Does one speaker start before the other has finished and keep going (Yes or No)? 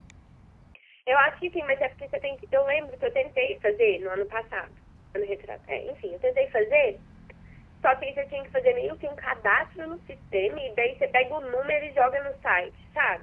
No